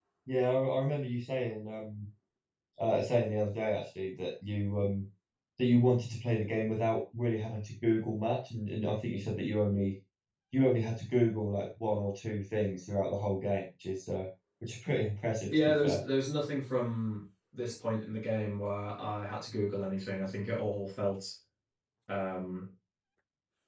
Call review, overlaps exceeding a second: none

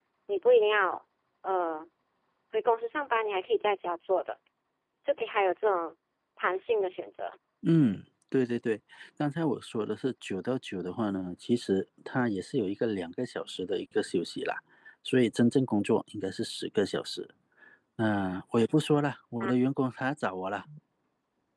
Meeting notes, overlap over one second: none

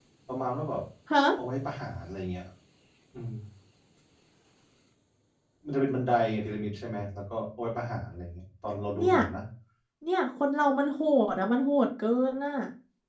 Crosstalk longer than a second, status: none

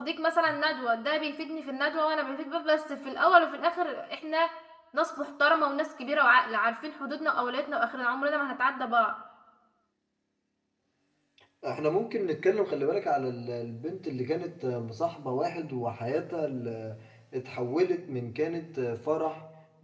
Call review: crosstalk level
none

